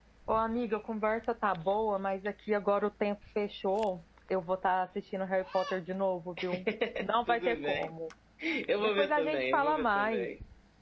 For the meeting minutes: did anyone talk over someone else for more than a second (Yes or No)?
Yes